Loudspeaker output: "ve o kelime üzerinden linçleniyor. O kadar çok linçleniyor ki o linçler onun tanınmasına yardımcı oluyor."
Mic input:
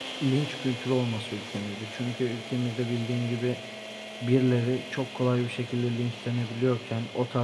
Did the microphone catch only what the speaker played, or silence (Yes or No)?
No